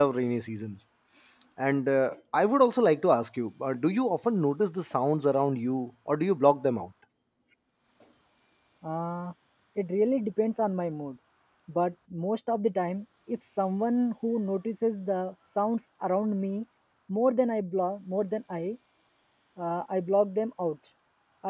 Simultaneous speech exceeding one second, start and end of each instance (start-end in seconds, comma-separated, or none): none